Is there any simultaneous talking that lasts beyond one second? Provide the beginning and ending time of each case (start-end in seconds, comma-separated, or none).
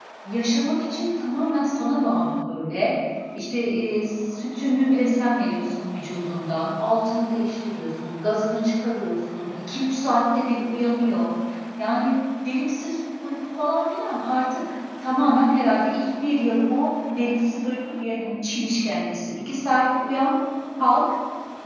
none